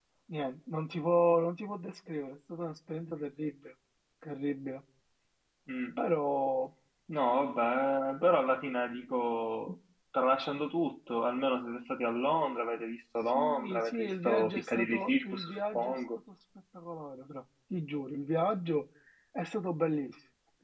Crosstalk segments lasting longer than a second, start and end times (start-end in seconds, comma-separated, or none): 13.3-16.0